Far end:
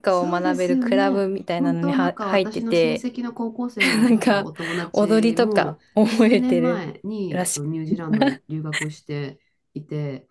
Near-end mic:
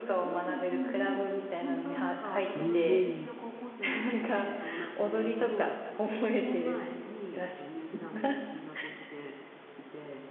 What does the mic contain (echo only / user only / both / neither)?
both